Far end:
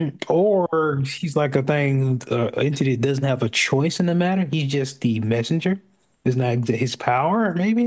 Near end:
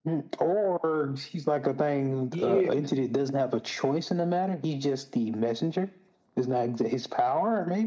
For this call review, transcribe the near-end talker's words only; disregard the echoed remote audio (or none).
yeah,